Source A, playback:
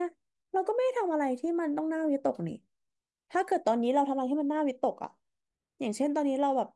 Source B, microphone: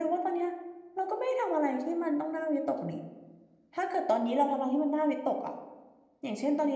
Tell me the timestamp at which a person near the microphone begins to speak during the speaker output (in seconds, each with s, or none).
none